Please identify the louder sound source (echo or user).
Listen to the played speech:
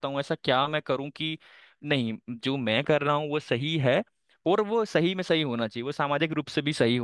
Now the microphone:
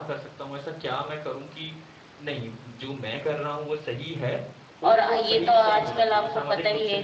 user